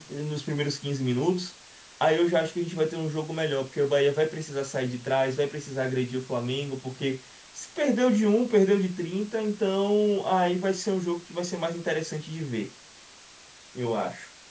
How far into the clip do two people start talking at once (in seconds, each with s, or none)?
none